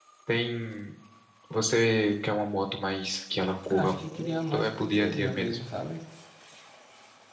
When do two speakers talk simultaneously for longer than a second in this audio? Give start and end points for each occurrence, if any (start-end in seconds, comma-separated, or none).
3.7-5.6